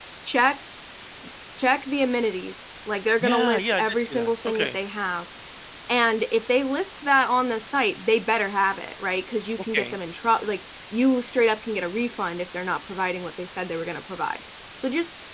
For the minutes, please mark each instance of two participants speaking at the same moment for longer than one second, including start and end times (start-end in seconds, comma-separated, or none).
3.2-4.8